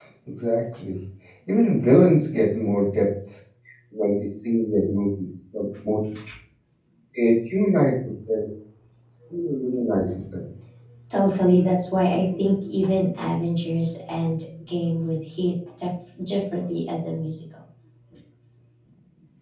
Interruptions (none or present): none